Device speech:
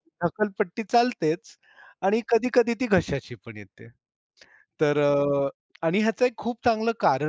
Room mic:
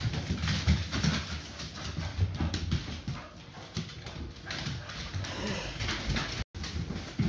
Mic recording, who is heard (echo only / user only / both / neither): neither